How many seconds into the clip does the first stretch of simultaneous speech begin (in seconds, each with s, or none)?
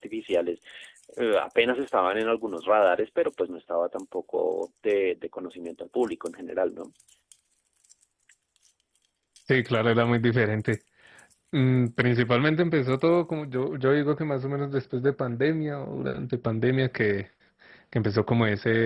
none